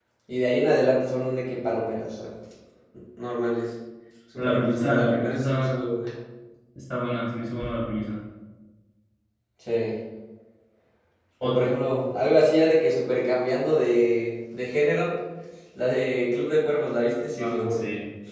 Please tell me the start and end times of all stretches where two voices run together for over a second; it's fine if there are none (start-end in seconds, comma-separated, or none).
4.3-5.8